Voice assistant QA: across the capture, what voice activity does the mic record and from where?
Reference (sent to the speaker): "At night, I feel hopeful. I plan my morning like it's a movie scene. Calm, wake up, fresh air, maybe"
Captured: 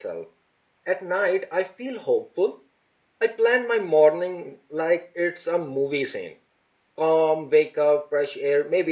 echo only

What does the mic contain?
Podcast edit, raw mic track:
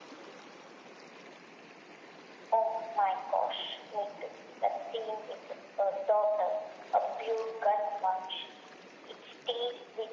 echo only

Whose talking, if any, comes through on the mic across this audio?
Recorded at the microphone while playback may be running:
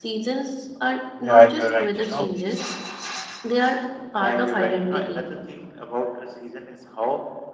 both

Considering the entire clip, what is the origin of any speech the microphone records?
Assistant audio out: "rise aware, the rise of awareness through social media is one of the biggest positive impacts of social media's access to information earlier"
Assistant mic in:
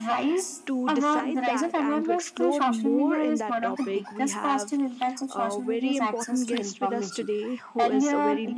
both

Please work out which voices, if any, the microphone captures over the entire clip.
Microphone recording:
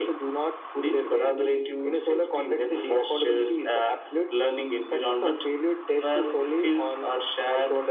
echo only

